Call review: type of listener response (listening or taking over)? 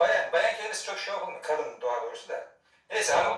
listening